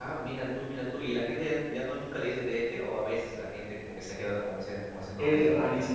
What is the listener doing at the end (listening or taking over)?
taking over